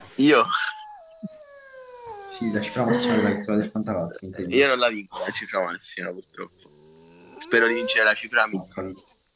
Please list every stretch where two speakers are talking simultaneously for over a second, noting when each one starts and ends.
none

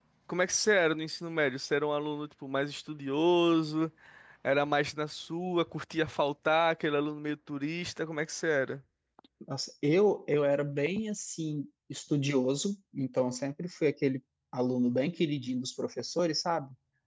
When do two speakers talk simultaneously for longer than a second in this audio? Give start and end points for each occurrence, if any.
none

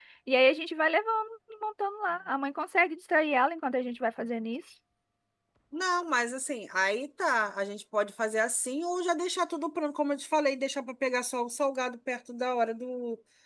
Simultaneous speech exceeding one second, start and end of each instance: none

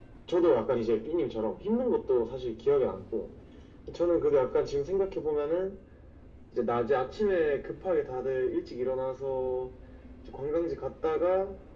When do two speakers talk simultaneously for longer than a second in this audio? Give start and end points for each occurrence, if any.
none

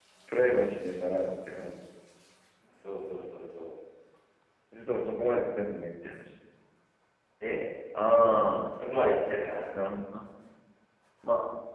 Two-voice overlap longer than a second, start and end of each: none

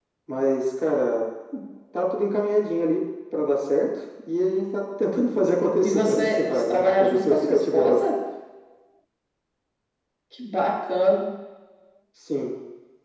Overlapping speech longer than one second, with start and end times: 5.8-8.0

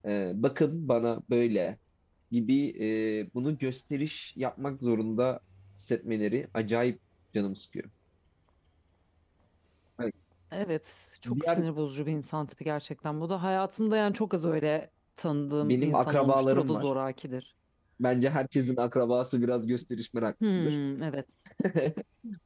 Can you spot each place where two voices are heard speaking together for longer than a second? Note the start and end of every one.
15.6-16.9

